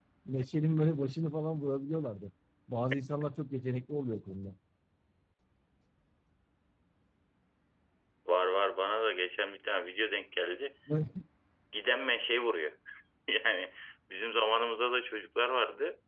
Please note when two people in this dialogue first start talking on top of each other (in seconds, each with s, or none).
none